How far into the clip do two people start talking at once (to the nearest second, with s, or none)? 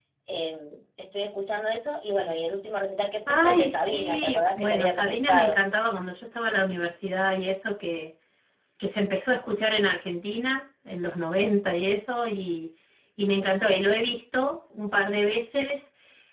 3 s